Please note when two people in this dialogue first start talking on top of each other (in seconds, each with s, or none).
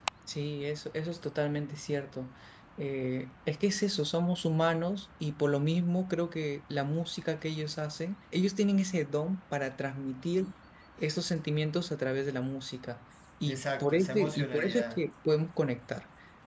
13.5 s